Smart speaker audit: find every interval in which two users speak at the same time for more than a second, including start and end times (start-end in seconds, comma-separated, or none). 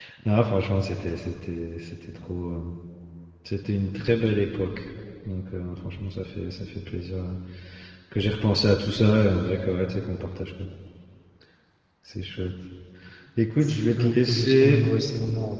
13.6-14.8